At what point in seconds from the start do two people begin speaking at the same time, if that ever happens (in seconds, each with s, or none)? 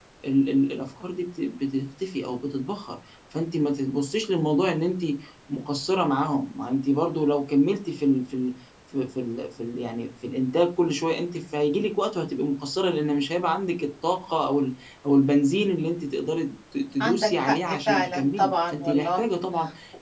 17.0 s